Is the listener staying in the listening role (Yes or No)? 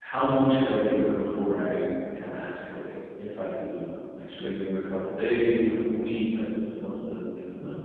No